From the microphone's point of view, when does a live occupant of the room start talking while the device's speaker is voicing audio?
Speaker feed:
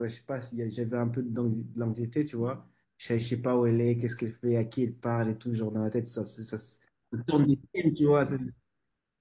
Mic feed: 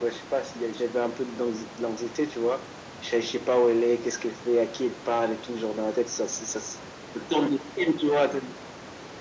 none

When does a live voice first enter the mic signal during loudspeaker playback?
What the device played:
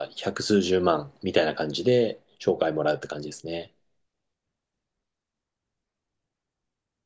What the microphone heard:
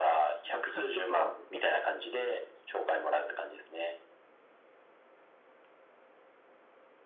0.5 s

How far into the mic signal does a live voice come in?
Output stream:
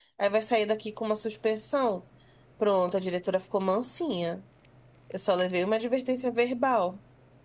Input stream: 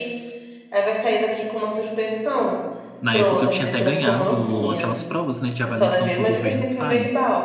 3.0 s

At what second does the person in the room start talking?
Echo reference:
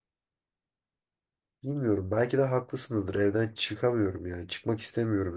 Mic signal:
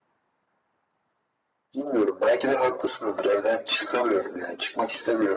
none

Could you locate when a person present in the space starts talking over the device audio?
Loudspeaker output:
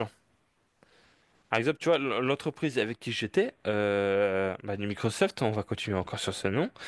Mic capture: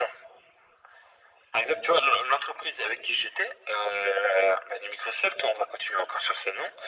none

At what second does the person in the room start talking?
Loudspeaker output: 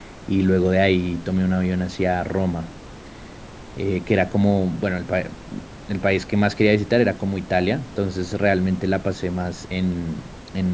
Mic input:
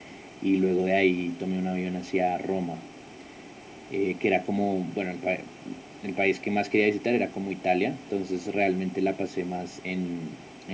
none

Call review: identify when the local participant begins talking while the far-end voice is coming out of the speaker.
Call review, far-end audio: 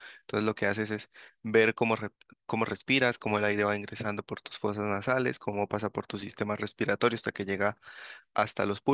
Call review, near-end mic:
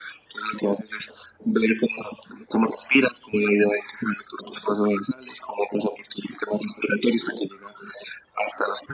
none

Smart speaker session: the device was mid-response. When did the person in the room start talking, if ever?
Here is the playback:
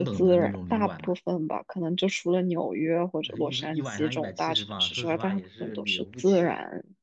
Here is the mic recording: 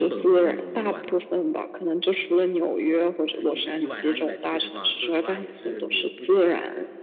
none

